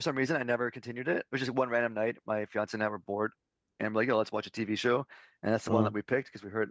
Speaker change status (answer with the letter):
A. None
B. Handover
A